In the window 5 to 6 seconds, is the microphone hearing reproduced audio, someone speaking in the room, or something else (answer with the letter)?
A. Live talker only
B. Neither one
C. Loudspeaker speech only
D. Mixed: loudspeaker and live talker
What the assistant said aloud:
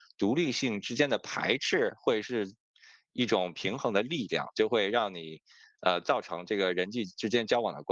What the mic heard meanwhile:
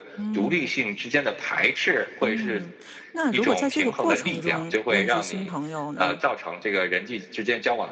D